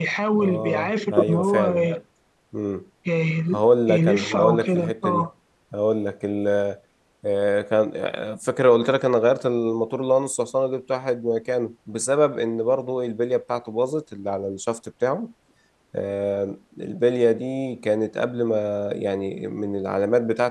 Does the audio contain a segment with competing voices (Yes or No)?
Yes